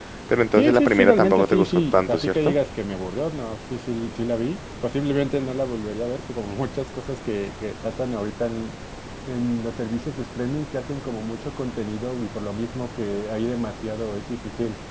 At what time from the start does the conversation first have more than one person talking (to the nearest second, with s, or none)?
1 s